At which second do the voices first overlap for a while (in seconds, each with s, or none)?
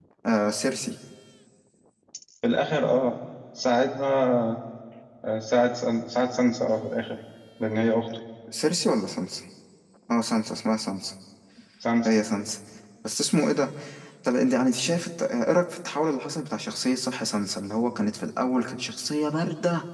none